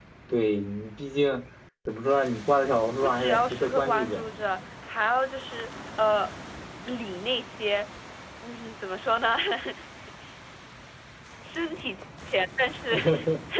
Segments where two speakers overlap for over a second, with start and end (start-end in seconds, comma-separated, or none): 3.0-4.2